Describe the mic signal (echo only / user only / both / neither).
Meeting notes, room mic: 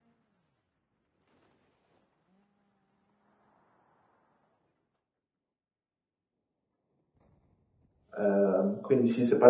user only